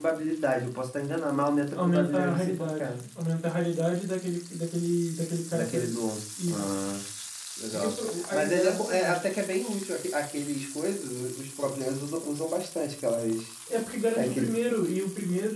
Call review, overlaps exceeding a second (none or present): present